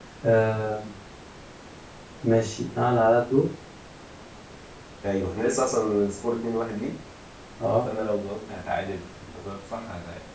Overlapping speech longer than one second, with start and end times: none

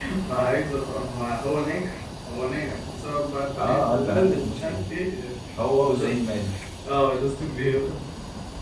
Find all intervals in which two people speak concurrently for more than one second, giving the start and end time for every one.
3.5-4.8

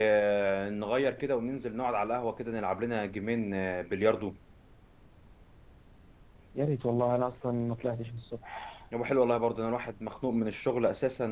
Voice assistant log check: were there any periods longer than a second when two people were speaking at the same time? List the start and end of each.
none

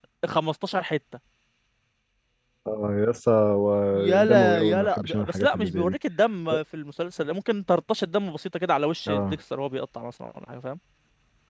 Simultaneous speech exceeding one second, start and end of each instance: 4.2-6.0

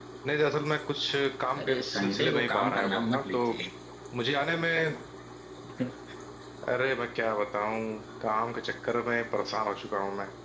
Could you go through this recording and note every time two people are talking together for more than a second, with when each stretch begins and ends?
1.6-3.5

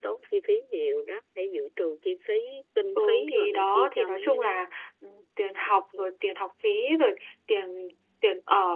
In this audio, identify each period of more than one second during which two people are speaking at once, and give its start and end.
3.0-4.5

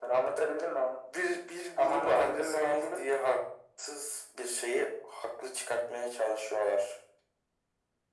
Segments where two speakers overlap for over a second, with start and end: 1.8-3.1

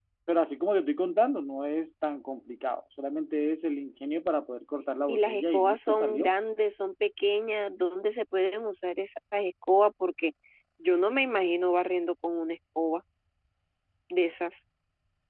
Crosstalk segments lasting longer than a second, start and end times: 5.1-6.3

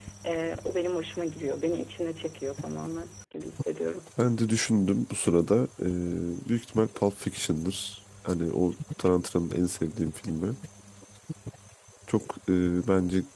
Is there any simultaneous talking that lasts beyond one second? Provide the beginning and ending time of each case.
none

